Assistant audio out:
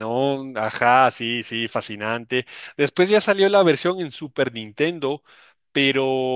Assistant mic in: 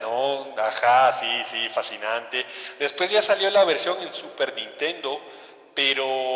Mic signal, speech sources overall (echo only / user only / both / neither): echo only